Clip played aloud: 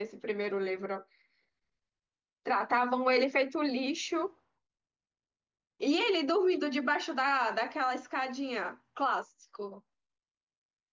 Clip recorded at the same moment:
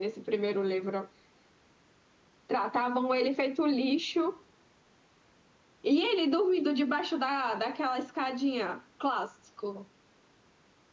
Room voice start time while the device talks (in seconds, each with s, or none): none